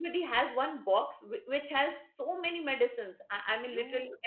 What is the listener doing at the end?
taking over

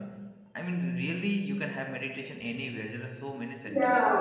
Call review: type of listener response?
taking over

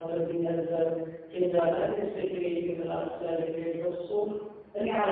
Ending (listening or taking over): taking over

